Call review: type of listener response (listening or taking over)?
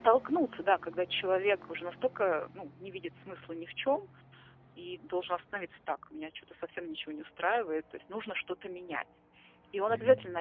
listening